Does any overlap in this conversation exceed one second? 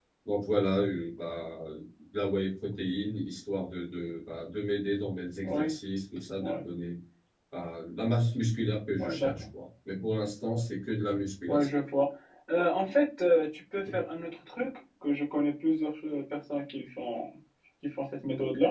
No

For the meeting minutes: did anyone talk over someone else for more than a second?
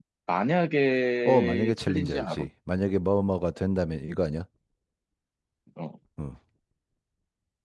Yes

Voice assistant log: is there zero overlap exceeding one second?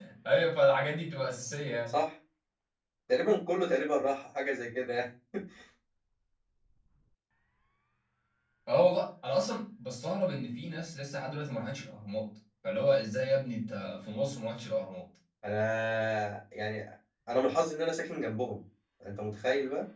Yes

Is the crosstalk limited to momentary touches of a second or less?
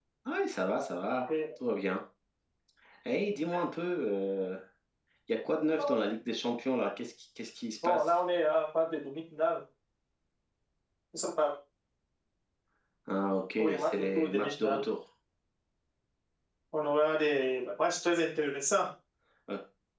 No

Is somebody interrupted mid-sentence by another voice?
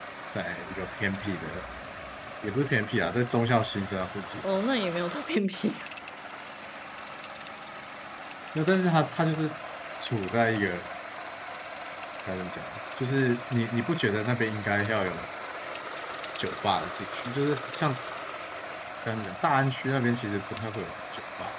No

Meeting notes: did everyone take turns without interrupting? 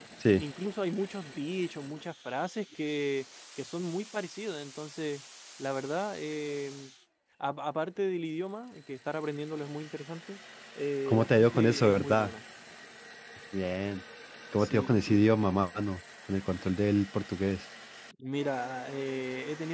No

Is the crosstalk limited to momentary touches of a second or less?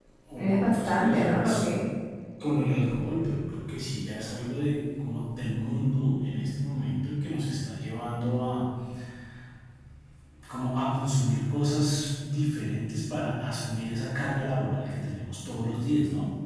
No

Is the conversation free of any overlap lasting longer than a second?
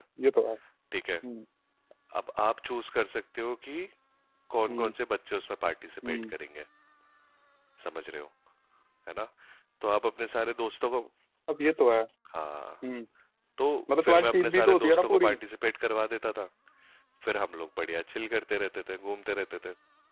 No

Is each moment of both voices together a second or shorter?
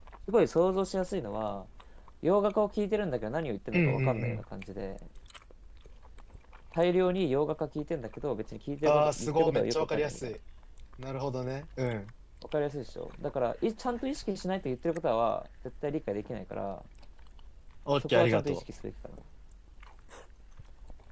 No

